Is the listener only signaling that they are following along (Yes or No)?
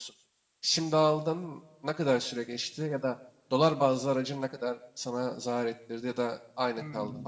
No